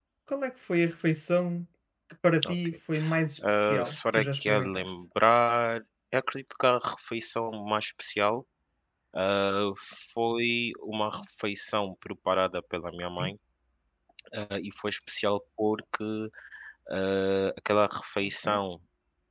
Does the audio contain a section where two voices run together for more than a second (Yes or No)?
Yes